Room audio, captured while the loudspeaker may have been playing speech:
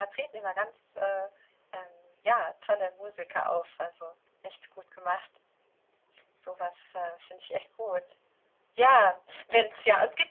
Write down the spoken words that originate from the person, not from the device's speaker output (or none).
none